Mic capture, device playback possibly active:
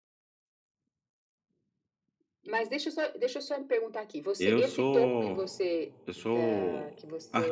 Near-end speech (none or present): present